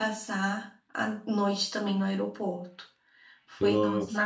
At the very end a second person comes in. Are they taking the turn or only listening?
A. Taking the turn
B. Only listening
B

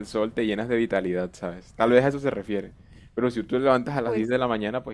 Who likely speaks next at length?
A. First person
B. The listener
A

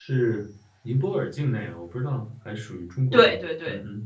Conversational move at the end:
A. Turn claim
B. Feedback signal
A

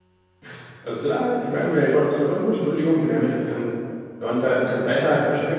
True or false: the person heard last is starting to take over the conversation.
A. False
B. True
A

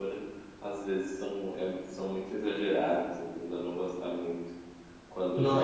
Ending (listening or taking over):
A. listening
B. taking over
A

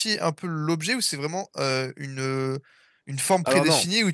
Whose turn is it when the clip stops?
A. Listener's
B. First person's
B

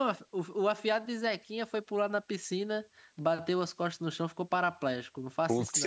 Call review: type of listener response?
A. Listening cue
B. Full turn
B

